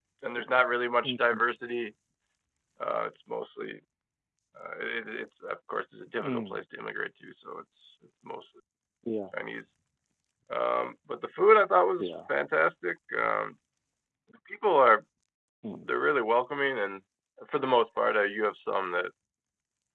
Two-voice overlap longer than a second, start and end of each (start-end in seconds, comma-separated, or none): none